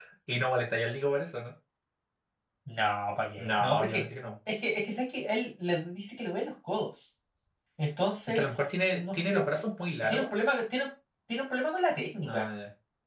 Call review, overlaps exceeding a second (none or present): present